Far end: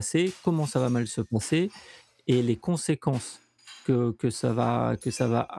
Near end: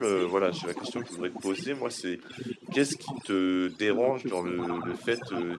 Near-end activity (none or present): present